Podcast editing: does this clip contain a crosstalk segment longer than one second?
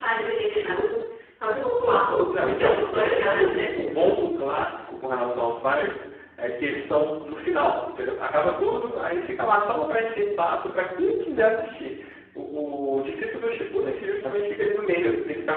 Yes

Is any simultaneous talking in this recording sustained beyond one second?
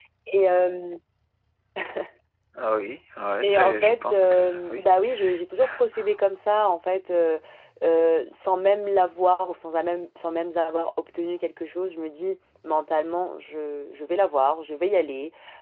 Yes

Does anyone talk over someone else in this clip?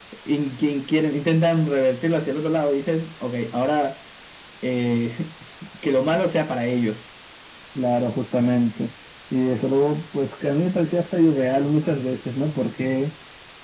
No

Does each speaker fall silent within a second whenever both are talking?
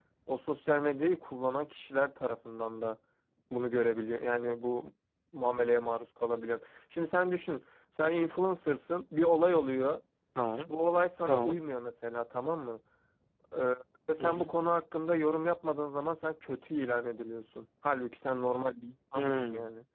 Yes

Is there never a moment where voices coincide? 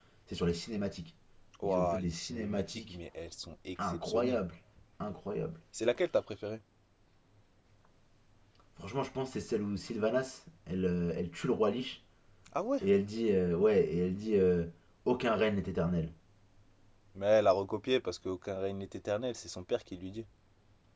No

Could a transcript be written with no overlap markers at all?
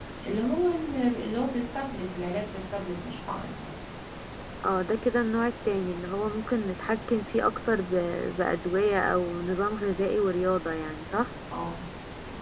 Yes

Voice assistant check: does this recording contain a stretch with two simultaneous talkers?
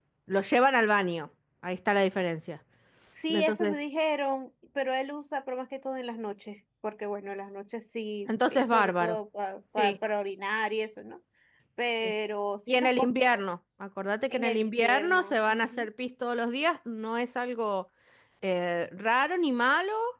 Yes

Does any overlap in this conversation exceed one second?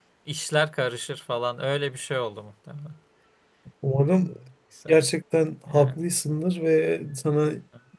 No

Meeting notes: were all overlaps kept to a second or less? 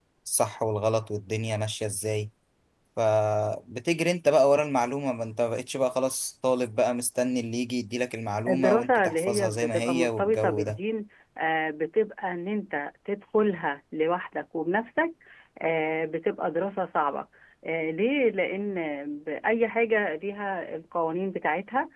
No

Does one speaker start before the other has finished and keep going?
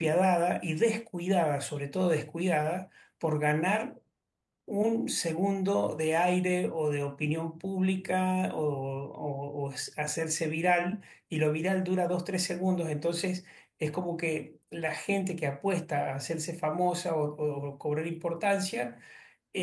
No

